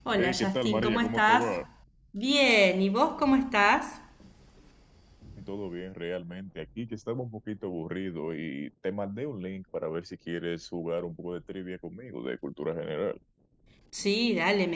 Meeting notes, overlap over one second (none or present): present